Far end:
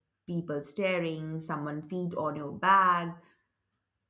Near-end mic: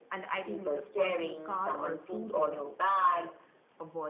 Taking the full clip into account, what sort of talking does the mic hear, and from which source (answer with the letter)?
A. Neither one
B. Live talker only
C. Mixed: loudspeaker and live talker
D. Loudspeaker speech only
C